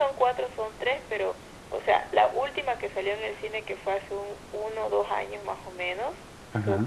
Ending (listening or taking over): listening